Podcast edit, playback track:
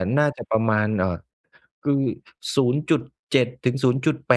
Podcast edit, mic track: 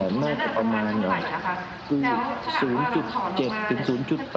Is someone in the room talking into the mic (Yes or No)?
Yes